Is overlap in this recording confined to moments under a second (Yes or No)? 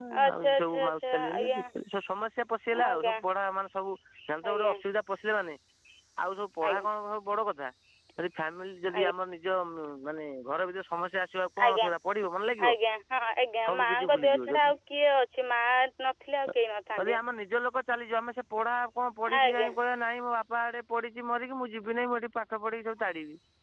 No